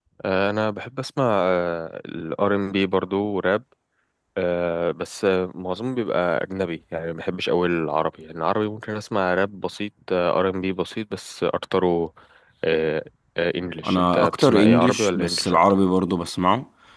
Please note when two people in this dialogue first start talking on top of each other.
14 s

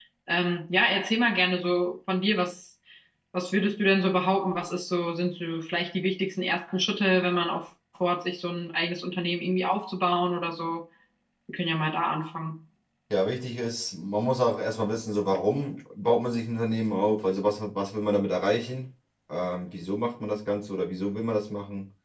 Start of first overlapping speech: none

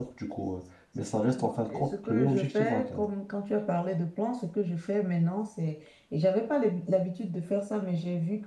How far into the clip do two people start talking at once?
1 s

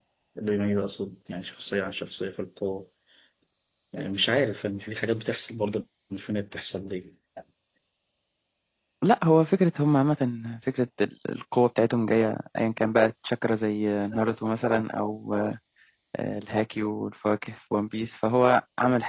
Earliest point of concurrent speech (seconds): none

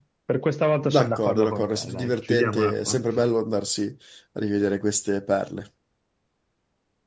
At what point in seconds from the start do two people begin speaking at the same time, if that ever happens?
1 s

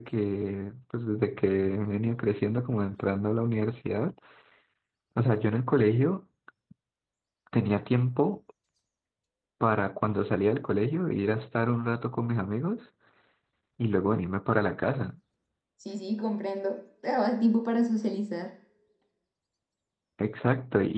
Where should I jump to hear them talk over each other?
none

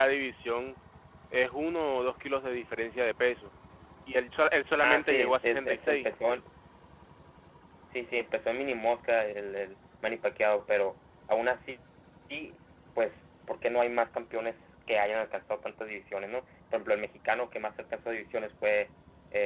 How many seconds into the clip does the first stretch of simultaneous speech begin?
5 s

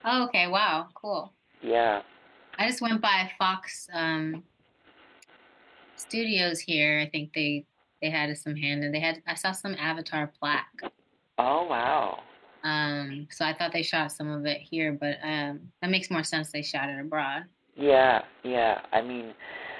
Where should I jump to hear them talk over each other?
none

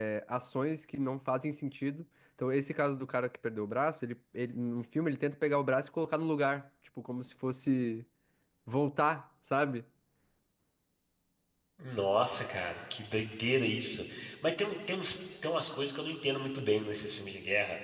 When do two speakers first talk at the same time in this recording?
none

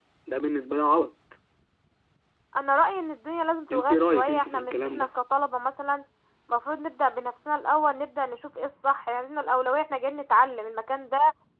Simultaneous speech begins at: 4 s

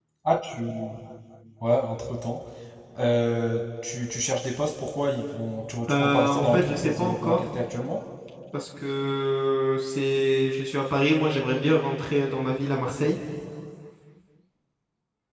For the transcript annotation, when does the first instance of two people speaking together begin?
6 s

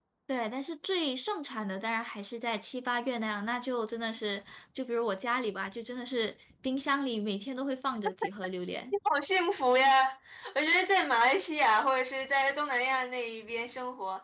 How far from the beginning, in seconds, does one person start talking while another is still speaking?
none

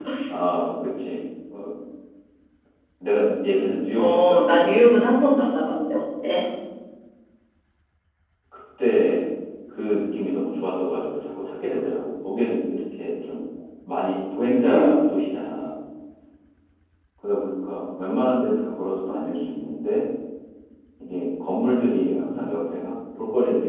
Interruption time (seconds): 4 s

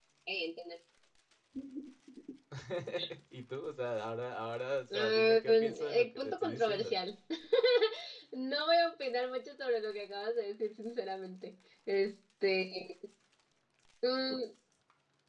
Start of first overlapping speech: 5 s

